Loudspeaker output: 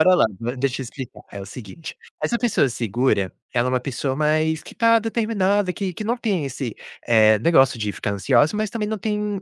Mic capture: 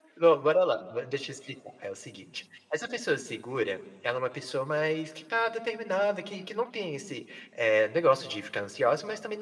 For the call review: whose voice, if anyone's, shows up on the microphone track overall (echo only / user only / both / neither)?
echo only